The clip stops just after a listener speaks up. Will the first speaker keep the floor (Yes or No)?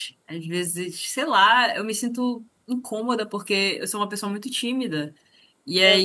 Yes